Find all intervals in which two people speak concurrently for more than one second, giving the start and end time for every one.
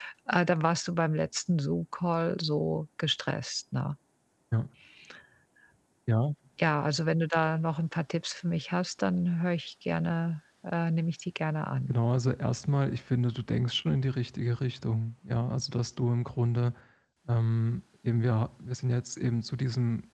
none

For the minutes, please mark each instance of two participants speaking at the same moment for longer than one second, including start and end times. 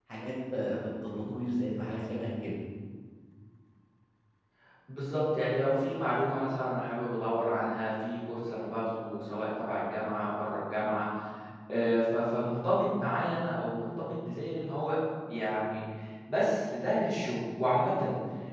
none

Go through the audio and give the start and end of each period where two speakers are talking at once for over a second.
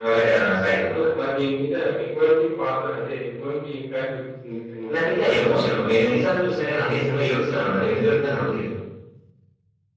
none

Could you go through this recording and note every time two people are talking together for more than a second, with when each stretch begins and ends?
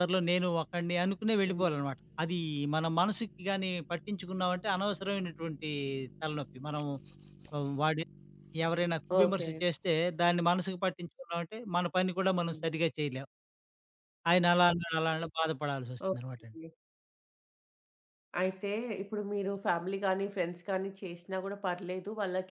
none

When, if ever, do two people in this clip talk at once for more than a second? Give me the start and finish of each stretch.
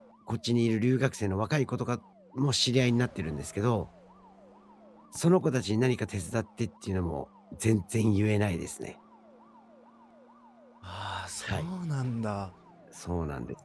none

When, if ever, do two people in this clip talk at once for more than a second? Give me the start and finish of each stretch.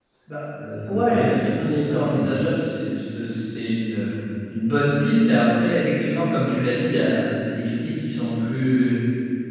0.9-2.3

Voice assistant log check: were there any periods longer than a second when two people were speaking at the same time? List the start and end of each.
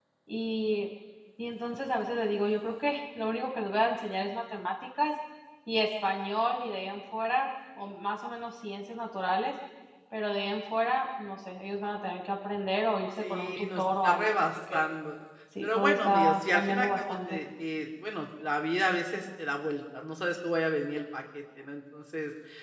13.2-14.8, 15.6-17.4

